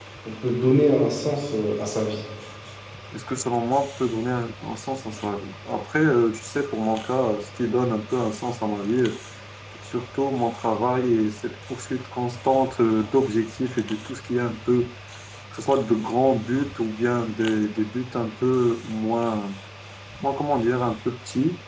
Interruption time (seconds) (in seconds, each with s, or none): none